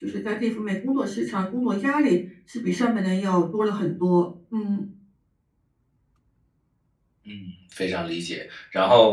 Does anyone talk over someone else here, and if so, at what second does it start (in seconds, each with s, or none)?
none